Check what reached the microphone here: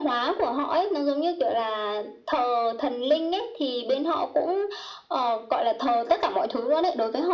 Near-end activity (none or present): none